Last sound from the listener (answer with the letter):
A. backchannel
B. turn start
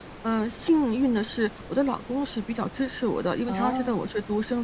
A